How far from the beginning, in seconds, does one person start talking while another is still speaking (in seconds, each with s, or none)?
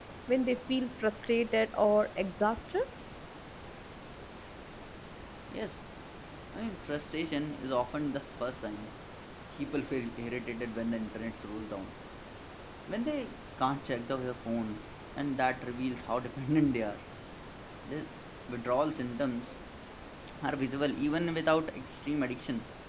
none